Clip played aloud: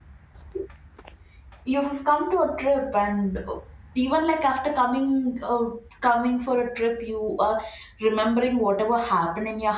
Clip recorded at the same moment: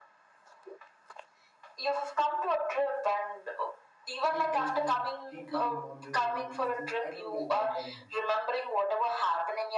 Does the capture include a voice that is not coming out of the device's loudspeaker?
Yes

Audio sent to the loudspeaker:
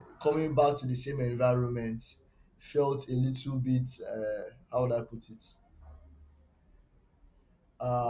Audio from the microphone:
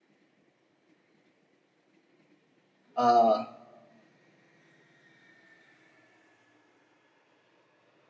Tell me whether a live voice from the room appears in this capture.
Yes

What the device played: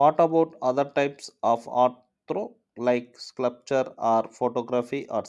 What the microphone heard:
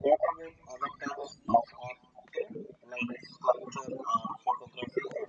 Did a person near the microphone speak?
No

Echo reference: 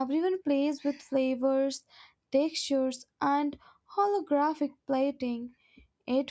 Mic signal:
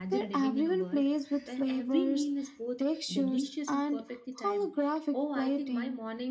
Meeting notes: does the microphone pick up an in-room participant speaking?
Yes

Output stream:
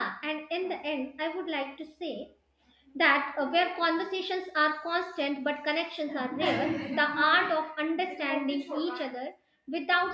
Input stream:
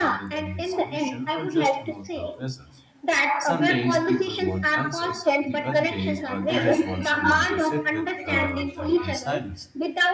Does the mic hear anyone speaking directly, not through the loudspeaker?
Yes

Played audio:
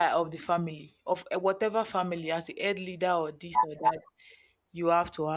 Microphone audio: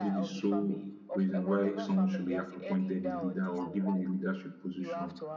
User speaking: Yes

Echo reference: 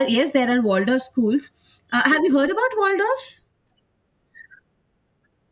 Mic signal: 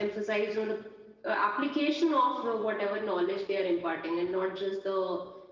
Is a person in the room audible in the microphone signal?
Yes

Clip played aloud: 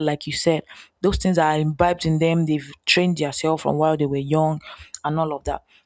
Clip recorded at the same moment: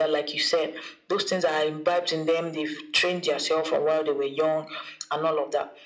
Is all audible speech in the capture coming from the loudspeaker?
Yes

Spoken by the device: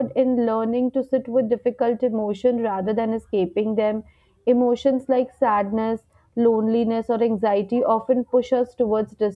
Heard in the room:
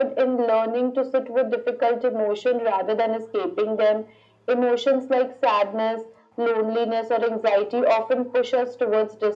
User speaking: No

